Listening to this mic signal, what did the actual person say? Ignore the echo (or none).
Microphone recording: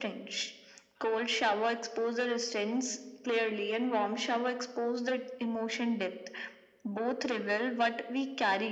none